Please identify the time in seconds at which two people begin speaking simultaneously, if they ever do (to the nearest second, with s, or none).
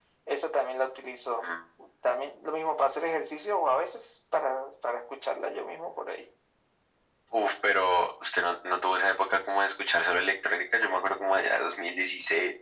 none